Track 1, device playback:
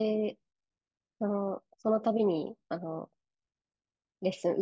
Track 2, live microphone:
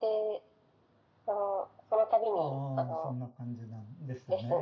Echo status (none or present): present